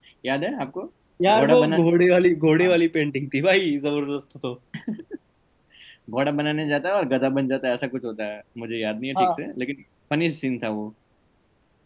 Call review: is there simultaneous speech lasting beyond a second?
No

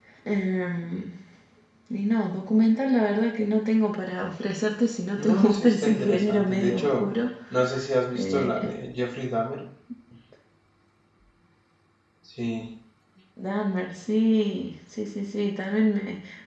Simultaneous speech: Yes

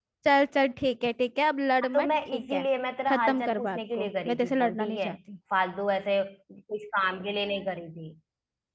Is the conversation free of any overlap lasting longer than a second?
No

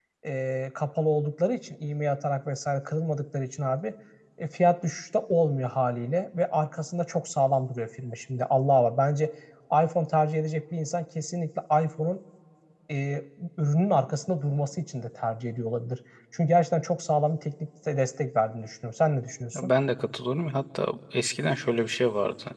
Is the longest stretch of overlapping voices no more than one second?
Yes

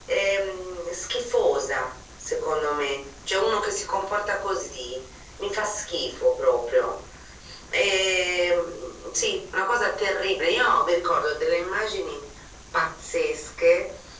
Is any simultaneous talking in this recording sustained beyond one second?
No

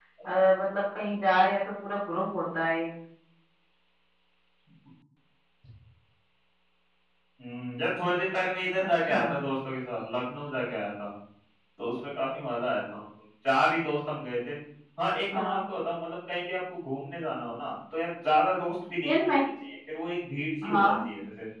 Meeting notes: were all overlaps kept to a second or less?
Yes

